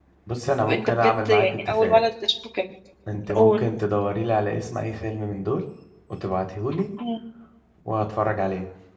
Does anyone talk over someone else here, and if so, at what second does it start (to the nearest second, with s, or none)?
1 s